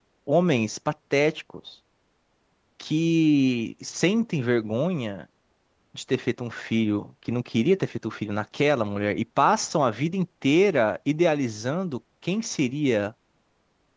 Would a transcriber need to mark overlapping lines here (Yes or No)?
No